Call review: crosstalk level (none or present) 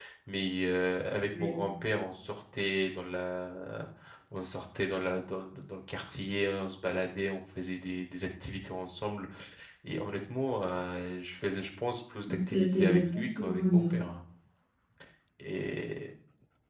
present